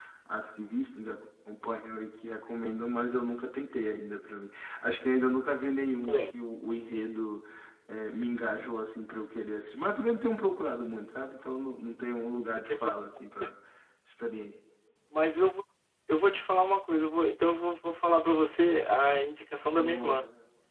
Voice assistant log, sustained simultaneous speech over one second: none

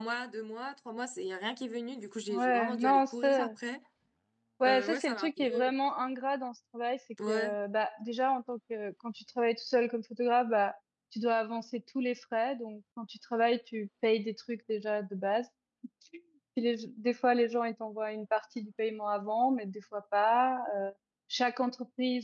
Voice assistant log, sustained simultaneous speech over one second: present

